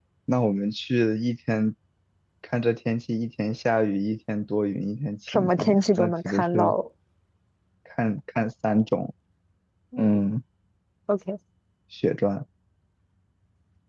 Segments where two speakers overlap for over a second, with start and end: 5.3-6.7

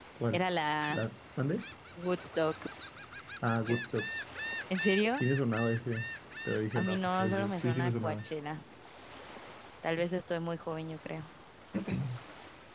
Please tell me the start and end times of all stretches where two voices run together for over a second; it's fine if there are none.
6.7-8.3

